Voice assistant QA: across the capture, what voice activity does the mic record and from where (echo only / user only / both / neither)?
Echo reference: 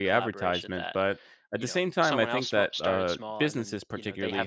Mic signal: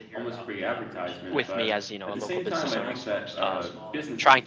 both